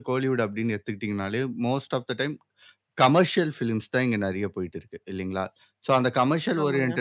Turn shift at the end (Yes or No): No